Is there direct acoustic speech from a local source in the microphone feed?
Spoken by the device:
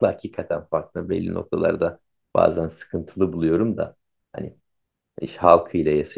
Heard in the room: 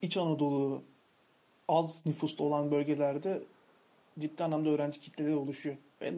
Yes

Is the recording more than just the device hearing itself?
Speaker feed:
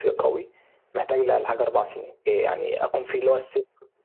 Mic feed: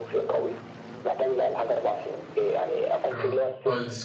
Yes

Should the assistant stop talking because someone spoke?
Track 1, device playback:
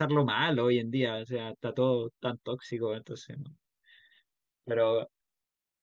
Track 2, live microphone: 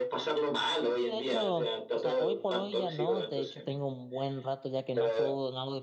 Yes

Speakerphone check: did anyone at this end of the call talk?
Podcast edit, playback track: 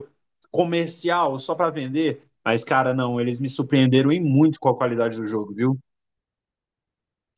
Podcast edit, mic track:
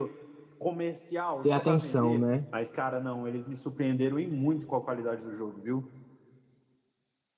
Yes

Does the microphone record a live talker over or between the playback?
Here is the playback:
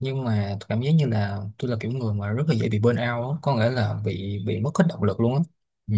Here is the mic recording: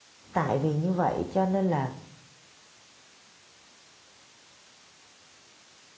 Yes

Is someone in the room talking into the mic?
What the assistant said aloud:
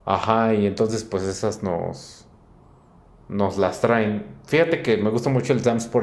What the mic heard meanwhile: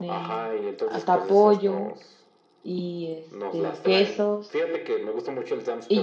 Yes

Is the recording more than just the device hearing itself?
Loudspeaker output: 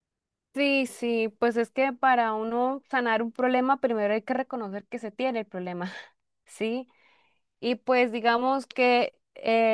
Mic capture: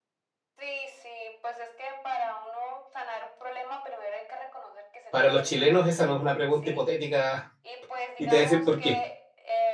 Yes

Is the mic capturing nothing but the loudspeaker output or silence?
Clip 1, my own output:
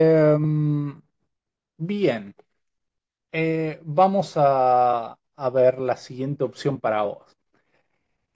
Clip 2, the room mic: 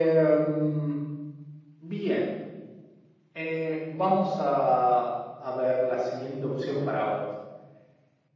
Yes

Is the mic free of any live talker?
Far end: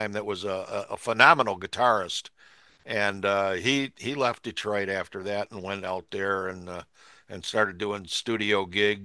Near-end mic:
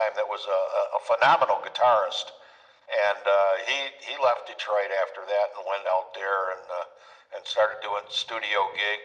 Yes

